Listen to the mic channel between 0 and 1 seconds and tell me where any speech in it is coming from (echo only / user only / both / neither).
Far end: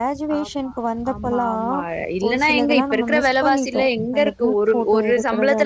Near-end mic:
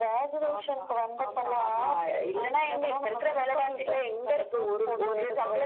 echo only